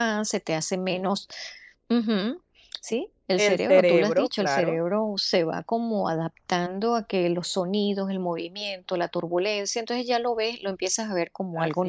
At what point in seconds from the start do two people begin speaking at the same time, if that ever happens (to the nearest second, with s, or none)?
3 s